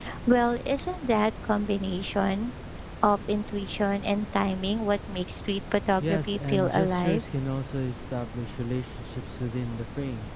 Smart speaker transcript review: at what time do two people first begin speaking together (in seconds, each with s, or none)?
6.0 s